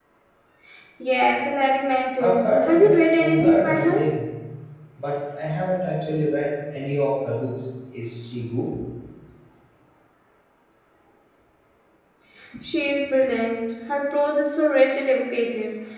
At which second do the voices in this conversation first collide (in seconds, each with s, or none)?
2.2 s